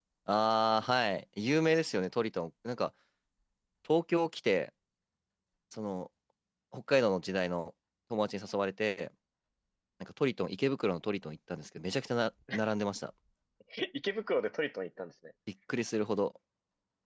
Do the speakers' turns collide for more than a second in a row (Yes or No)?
No